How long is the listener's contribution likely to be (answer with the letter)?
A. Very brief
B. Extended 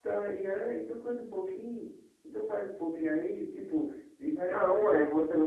B